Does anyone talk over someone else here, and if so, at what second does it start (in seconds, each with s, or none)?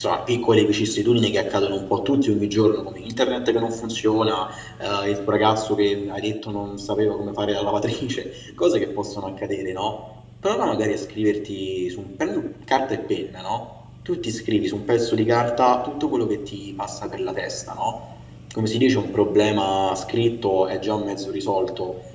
none